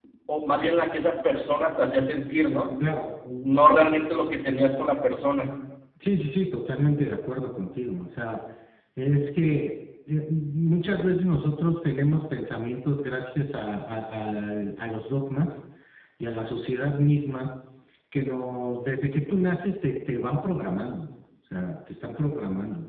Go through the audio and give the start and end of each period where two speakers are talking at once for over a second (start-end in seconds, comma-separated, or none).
none